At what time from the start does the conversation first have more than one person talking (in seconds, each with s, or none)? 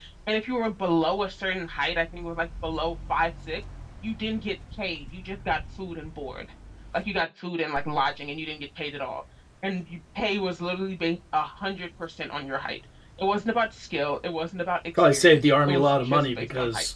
15.0 s